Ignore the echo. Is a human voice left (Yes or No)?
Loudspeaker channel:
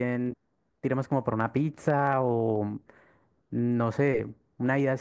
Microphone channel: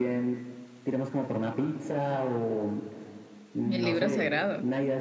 Yes